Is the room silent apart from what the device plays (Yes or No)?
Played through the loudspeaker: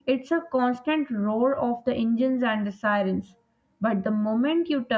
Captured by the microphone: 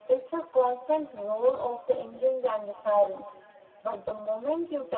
Yes